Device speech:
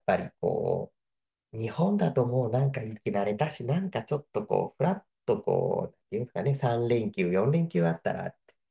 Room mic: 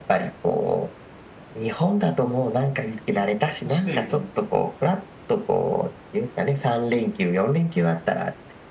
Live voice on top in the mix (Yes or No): No